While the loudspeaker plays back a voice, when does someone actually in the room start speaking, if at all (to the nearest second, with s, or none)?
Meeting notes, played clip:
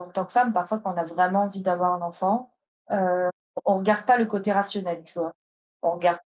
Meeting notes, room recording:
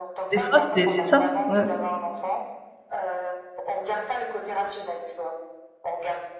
0 s